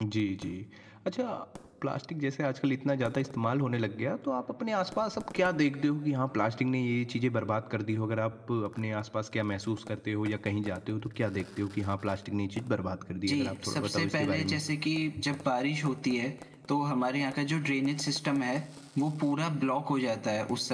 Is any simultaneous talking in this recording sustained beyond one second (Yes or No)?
Yes